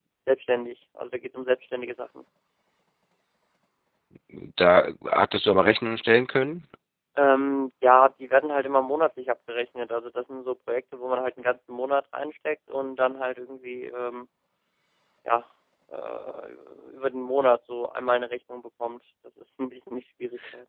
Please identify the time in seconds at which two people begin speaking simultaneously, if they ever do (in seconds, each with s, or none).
none